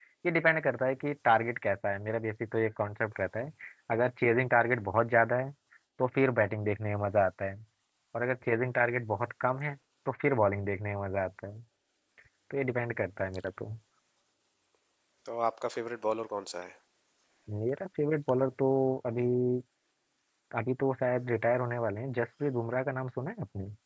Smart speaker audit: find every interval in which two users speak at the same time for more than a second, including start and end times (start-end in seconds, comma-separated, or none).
none